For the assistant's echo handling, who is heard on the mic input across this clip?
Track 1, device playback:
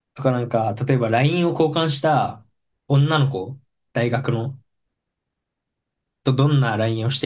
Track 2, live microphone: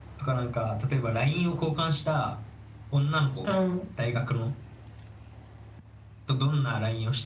both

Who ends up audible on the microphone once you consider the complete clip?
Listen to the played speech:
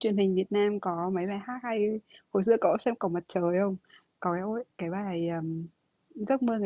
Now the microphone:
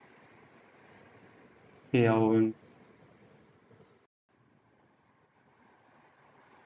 user only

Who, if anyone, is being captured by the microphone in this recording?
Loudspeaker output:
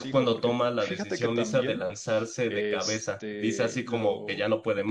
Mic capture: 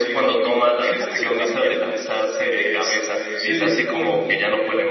both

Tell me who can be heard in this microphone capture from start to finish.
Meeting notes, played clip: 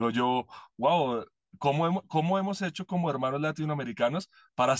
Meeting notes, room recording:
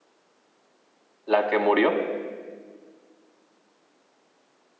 user only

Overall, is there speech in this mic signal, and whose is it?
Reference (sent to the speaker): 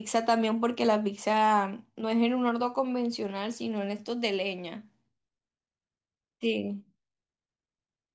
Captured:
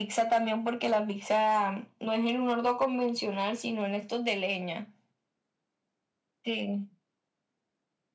echo only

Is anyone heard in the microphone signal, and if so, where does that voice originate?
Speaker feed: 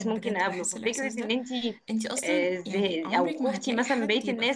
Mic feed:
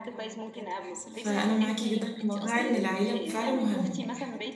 both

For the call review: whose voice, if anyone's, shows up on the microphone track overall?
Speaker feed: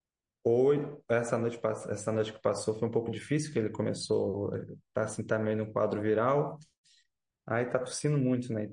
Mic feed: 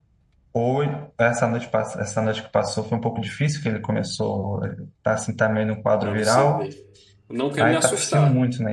both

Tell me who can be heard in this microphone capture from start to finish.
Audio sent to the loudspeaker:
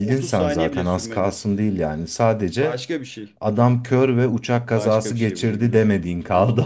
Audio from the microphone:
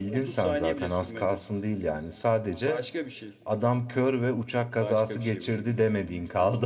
echo only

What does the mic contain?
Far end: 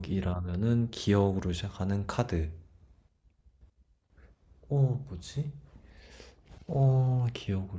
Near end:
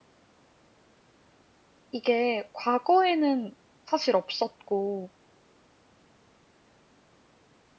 user only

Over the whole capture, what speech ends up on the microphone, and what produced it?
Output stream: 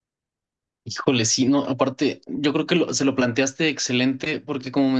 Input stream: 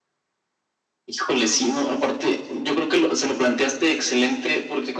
echo only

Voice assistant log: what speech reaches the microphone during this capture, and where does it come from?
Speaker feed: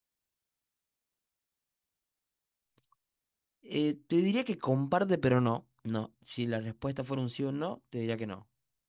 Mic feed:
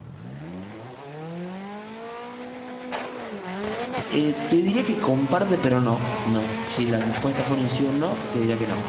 echo only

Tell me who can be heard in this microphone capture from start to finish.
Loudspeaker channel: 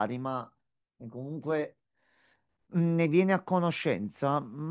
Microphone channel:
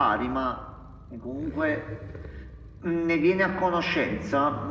echo only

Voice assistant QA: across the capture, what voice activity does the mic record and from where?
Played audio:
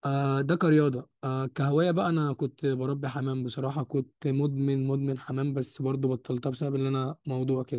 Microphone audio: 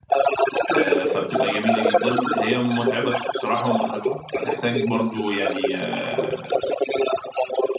both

